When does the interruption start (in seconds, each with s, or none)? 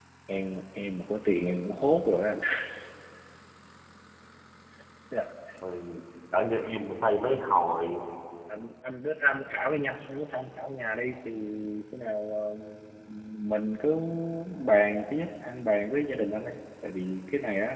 none